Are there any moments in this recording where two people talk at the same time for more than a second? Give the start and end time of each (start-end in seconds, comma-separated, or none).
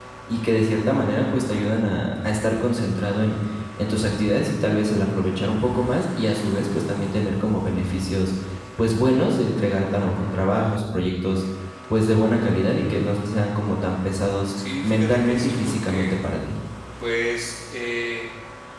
14.8-16.2